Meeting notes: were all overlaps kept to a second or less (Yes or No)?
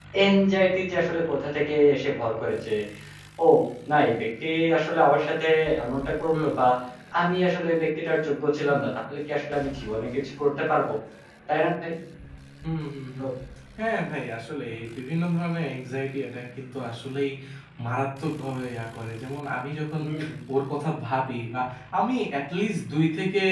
Yes